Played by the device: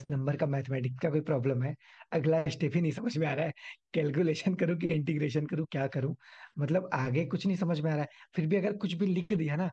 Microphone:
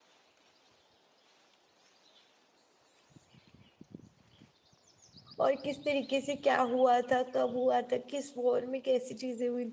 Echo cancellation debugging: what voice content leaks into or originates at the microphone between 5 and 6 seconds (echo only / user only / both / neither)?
user only